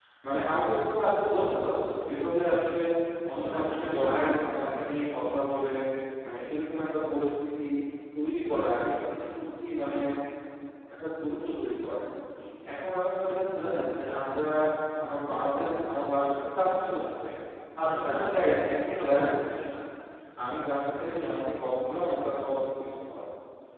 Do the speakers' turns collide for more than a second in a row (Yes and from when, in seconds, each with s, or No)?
Yes, from 3.5 s